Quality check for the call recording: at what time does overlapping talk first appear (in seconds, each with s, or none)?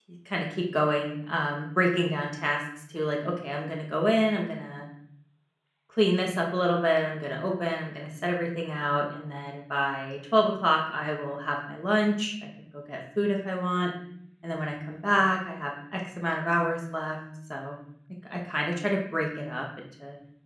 none